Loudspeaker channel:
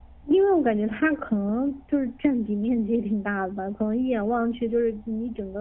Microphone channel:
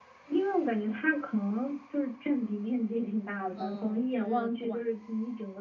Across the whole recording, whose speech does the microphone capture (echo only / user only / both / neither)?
both